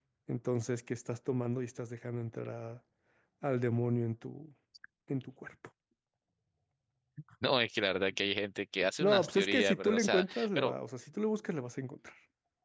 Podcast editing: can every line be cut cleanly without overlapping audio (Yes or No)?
No